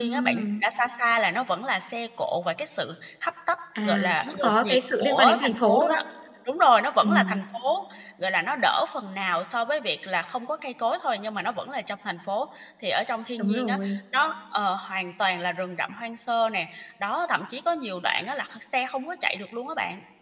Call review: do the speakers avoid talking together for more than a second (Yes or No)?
No